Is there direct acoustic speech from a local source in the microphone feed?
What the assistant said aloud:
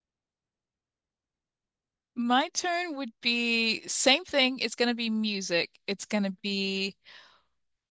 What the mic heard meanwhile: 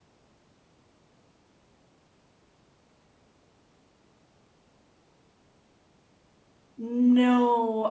Yes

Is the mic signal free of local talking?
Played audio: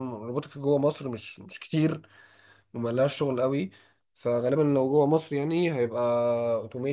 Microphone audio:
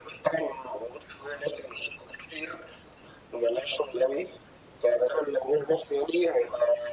Yes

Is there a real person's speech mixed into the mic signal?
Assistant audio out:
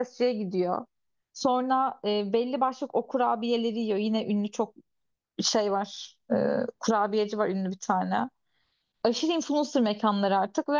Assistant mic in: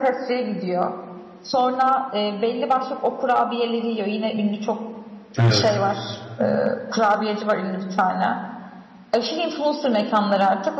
Yes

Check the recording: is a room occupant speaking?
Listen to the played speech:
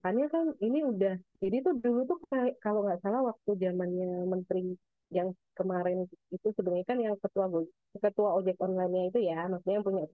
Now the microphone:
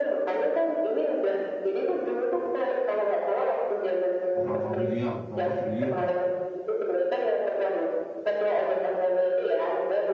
Yes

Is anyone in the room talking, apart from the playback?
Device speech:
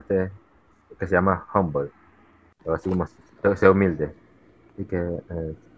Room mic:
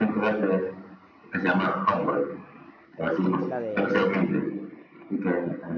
Yes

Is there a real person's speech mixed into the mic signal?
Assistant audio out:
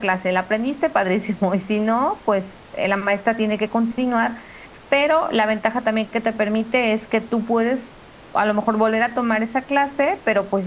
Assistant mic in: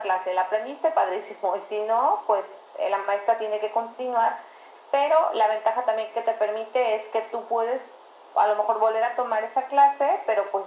No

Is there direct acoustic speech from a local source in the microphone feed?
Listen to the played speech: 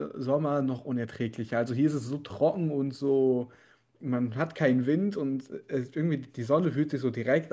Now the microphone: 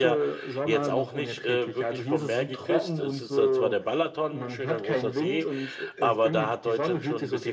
Yes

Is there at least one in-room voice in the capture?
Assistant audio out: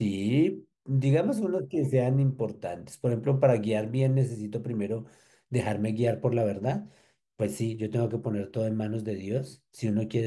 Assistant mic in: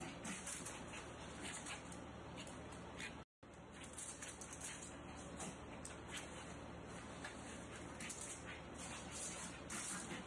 No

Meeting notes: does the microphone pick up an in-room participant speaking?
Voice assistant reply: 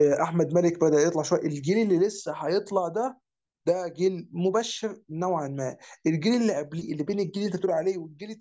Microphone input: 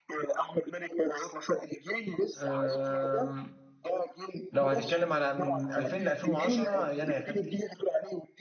Yes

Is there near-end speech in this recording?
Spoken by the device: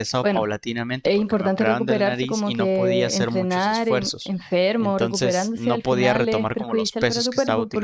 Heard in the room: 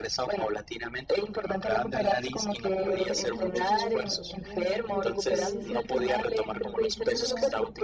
Yes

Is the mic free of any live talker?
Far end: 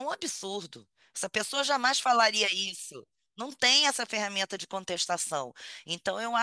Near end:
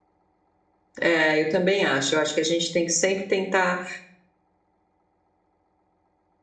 No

